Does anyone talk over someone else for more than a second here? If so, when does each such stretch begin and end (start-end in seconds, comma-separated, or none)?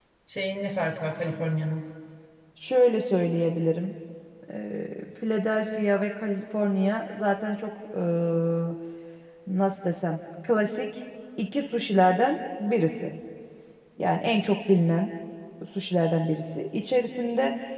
none